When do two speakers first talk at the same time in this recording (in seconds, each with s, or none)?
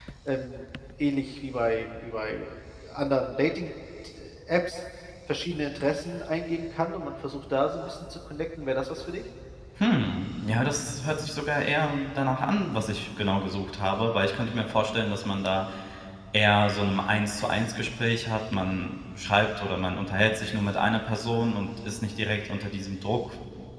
none